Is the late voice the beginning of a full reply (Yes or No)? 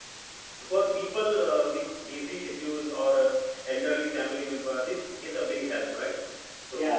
Yes